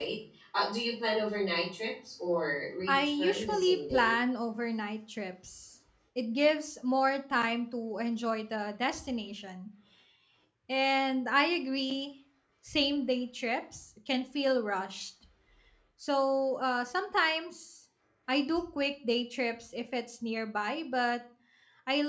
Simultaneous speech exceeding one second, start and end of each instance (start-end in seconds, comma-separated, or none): 2.9-4.2